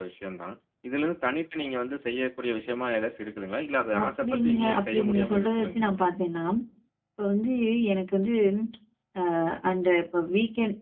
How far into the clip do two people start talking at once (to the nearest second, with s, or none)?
4 s